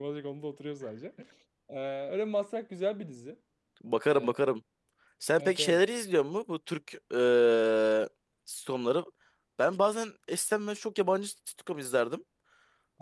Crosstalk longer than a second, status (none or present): none